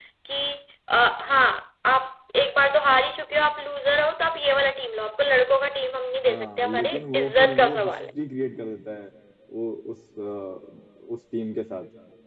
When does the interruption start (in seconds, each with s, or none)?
6.2 s